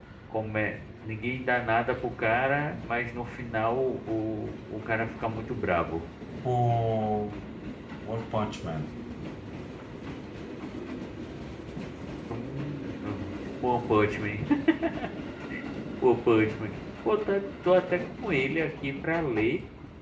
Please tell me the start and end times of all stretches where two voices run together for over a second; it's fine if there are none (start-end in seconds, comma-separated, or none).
none